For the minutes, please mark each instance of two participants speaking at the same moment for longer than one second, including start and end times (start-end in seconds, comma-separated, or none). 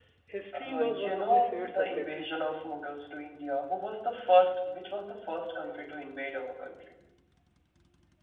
0.5-2.2